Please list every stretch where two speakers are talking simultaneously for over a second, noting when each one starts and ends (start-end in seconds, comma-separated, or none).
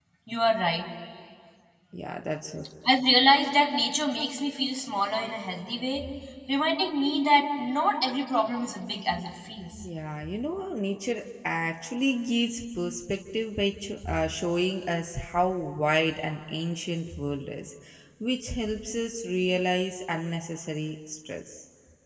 none